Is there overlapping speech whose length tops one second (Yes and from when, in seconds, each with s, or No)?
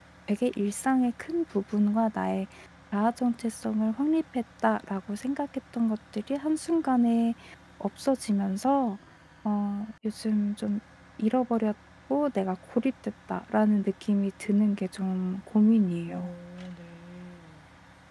No